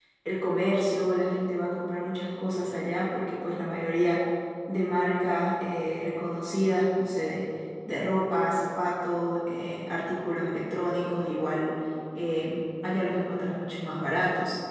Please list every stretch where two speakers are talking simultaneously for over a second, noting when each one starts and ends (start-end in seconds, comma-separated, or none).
none